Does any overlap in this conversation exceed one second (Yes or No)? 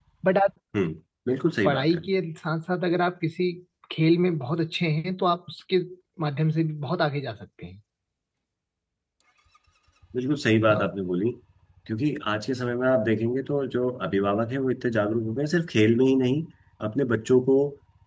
No